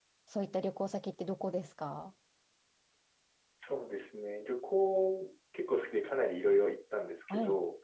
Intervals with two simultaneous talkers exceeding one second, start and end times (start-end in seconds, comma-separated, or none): none